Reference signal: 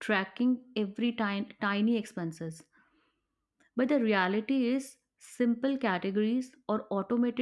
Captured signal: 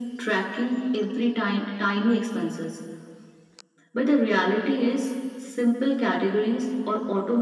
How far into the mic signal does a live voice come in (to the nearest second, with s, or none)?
none